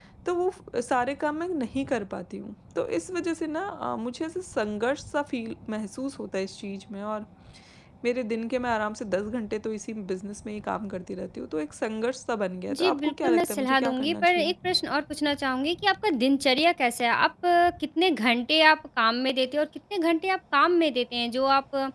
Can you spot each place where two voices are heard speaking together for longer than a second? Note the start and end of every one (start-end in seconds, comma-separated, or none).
12.8-14.5